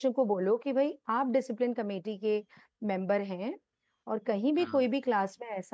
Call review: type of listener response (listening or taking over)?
listening